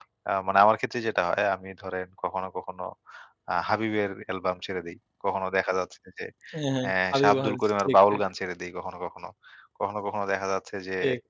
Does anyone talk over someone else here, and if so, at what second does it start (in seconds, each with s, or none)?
6.8 s